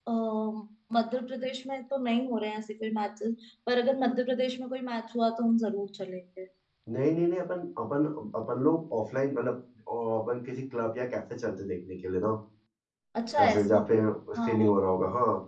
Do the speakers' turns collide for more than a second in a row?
No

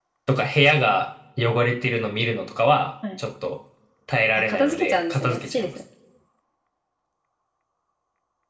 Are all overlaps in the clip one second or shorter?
No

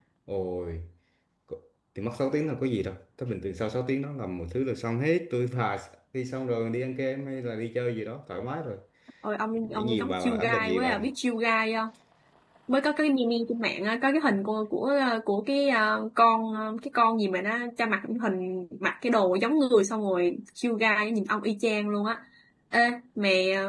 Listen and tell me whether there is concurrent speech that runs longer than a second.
Yes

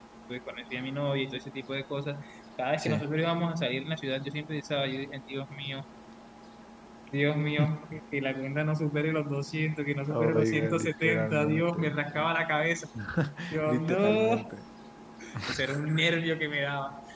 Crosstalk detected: Yes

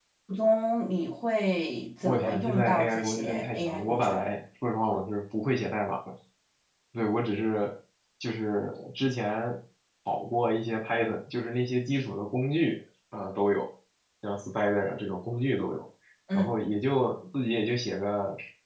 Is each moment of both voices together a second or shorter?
No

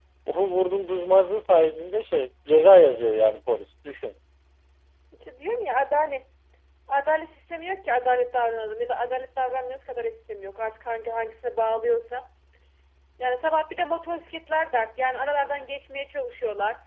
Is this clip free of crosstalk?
Yes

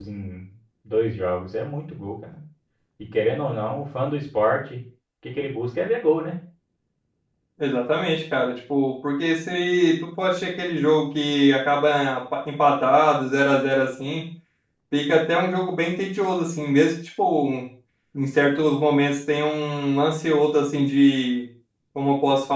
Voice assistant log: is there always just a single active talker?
Yes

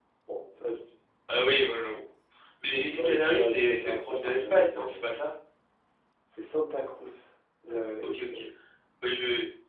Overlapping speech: Yes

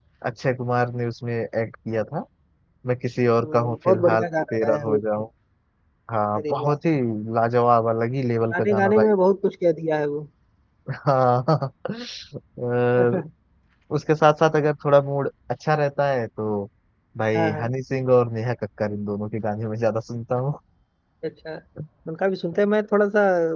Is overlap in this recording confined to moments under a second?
No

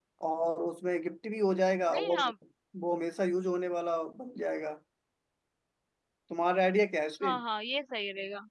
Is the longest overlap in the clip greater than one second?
No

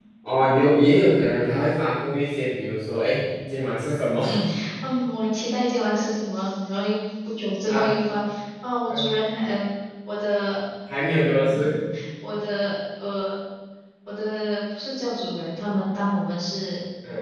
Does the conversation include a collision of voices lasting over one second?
No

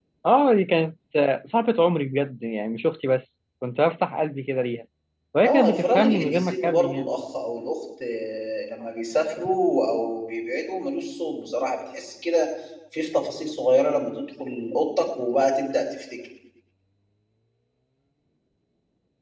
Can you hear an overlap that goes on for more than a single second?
Yes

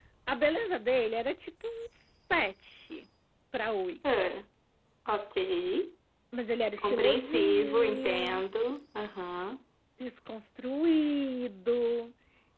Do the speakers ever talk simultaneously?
Yes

